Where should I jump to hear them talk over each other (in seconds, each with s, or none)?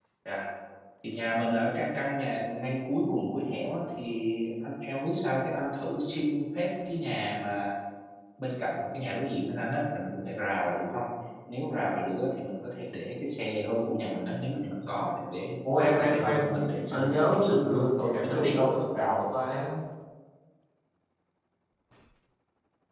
15.7 s